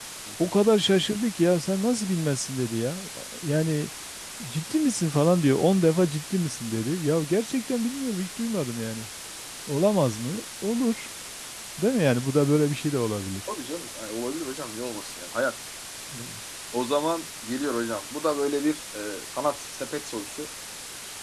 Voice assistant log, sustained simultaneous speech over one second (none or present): none